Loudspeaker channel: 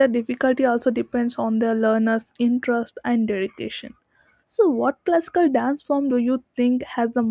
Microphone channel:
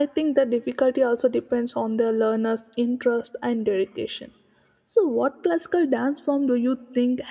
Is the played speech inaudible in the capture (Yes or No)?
No